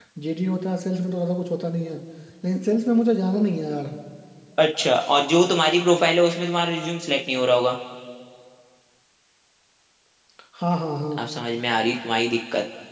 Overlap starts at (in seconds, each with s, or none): none